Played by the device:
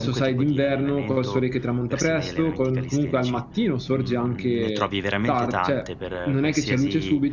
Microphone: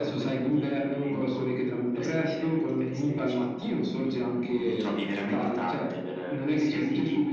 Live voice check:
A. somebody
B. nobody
B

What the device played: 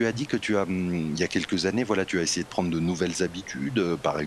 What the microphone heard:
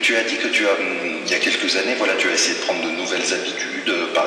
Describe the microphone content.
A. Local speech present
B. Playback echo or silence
B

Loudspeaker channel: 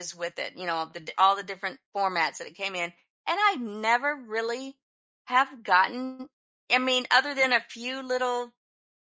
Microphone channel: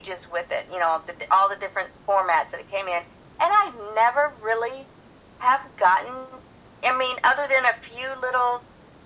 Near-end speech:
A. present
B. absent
B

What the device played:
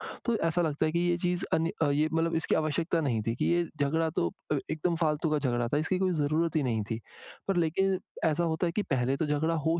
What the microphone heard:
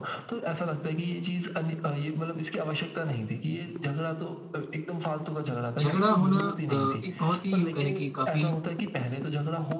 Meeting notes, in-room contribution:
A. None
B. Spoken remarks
B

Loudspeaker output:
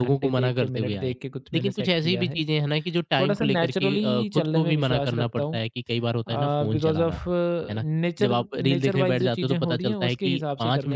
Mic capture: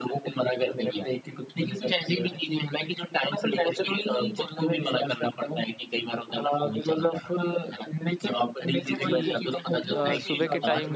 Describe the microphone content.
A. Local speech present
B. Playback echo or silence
A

